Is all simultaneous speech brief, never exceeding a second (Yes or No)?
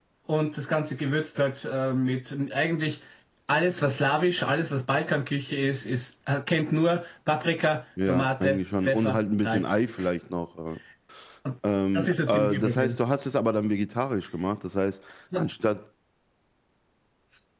No